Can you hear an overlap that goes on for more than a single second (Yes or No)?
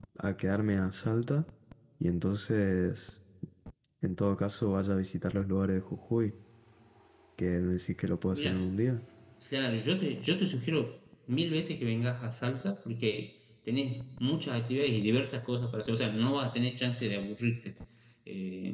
No